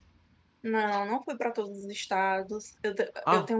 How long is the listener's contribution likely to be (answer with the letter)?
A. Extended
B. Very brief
A